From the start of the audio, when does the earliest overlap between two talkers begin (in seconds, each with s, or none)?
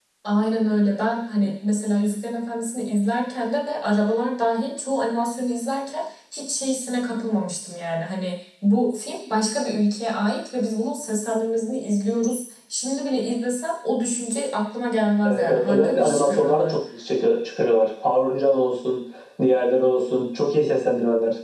15.2 s